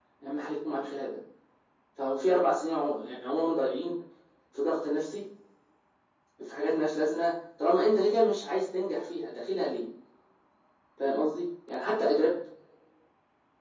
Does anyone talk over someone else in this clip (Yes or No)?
No